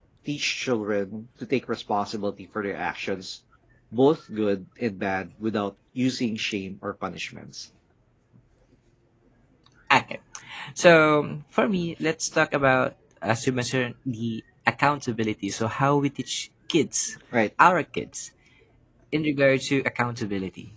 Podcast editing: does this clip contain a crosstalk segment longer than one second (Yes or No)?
No